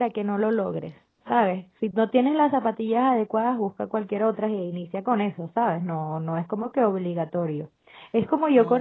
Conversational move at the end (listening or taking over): listening